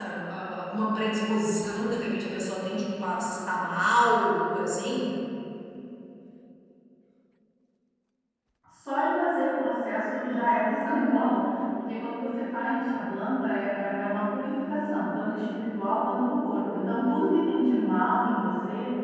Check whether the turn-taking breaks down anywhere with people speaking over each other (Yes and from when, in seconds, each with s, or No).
No